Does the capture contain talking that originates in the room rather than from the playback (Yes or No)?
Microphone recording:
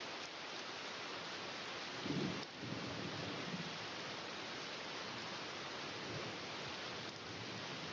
No